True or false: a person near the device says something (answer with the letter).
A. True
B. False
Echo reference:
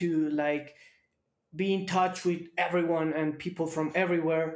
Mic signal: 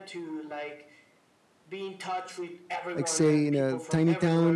A